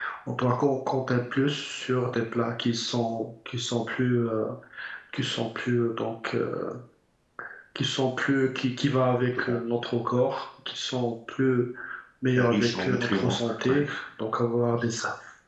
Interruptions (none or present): present